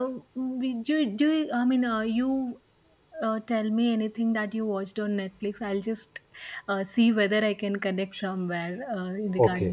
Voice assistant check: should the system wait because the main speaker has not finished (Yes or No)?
No